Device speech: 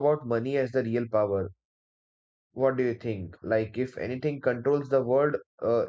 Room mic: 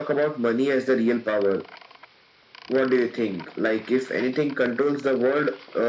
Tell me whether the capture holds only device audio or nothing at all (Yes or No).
Yes